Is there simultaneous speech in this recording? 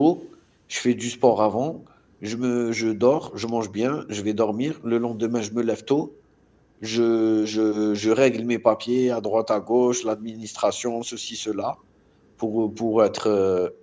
No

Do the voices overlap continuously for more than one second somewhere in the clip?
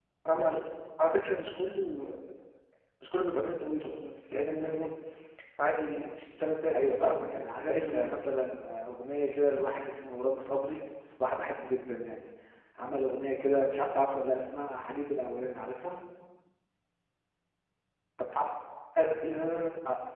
Yes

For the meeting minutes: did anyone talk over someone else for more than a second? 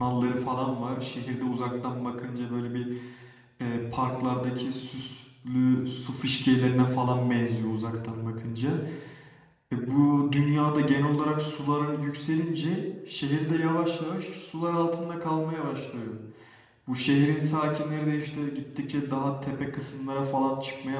No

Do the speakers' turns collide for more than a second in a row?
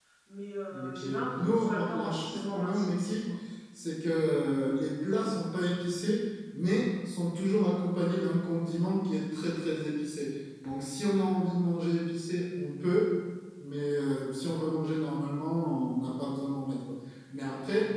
Yes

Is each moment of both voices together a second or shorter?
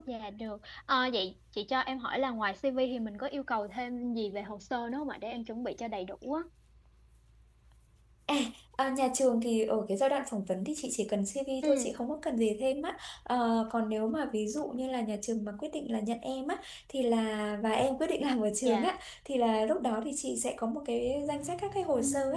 Yes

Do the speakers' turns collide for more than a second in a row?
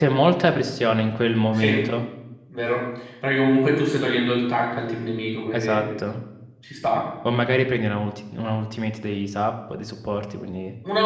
No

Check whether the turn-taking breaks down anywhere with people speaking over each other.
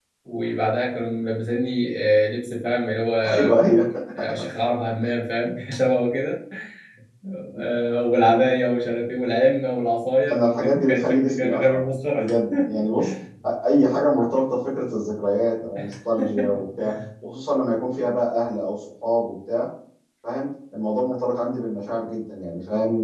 Yes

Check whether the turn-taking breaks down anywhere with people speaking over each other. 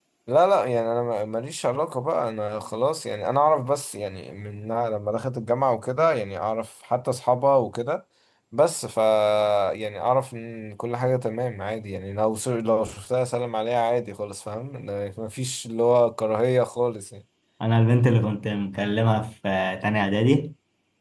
No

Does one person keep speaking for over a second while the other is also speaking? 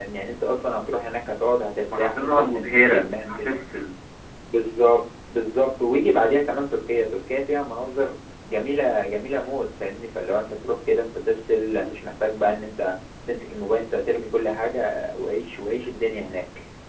Yes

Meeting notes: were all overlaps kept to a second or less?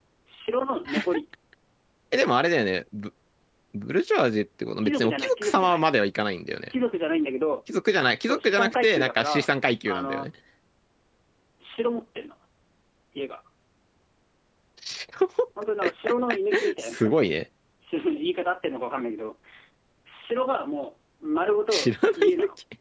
No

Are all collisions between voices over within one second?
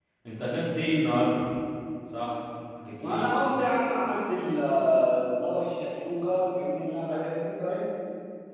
Yes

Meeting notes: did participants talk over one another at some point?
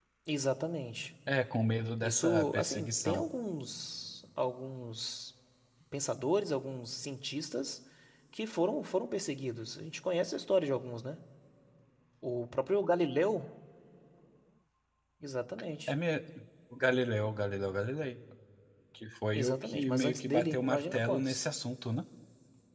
Yes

